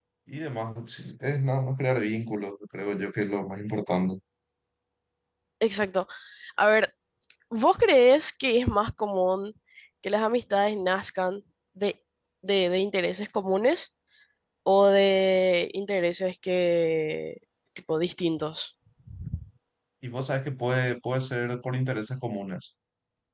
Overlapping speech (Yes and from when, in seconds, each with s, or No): No